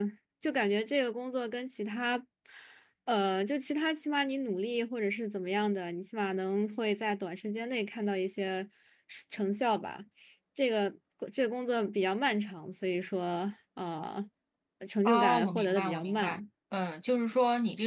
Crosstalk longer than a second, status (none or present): present